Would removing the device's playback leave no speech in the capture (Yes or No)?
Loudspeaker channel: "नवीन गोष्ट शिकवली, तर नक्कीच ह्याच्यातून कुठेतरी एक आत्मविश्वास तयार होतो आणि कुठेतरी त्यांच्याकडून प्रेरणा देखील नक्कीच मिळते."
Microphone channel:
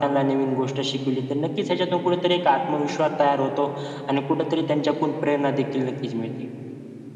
Yes